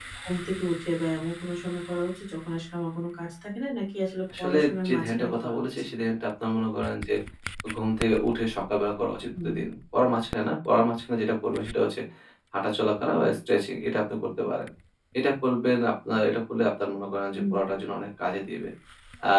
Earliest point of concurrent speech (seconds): 4 s

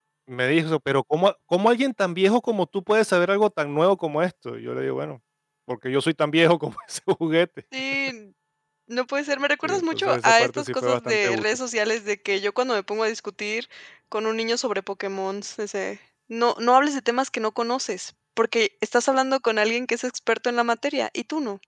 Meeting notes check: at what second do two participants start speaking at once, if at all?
10 s

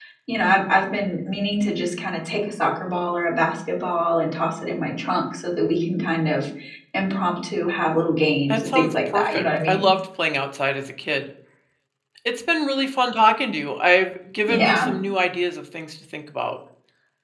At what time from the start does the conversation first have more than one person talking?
9 s

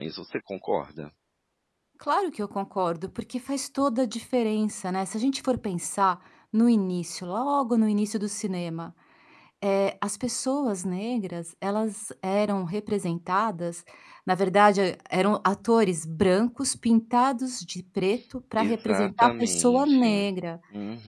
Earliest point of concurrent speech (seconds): 19 s

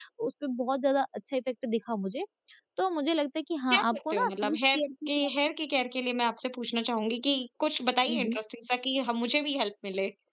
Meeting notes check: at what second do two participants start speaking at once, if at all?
4 s

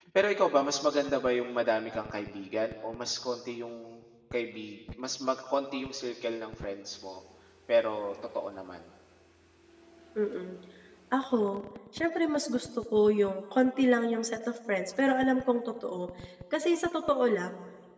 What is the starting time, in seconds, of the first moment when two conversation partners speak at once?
none

